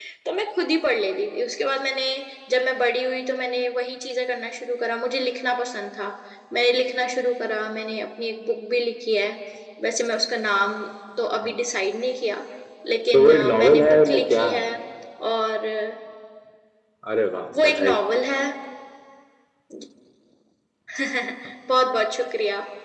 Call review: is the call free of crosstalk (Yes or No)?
No